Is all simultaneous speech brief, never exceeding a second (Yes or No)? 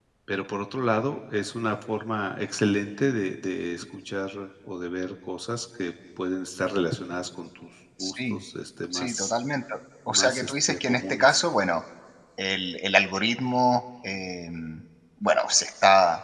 No